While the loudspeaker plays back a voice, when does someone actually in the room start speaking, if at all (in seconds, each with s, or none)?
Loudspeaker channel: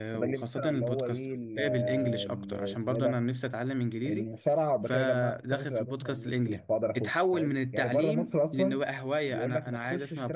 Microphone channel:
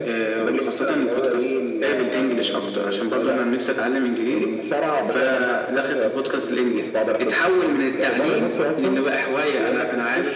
none